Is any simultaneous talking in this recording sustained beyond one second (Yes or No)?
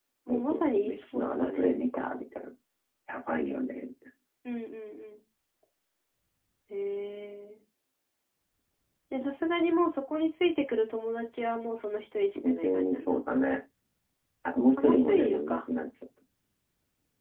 Yes